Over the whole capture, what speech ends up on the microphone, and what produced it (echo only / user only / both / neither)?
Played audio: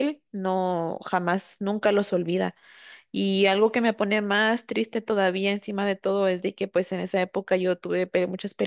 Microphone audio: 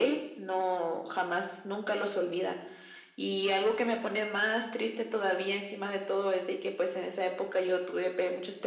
echo only